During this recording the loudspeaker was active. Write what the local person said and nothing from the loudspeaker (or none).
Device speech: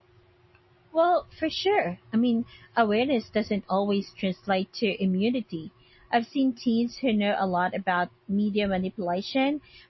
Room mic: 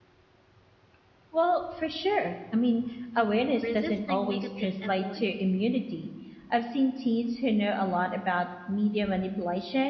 resisting negative influences.